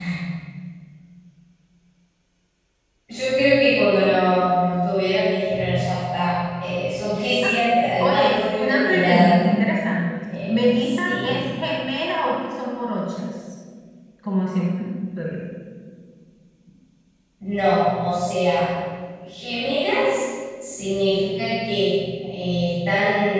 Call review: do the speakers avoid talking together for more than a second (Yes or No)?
No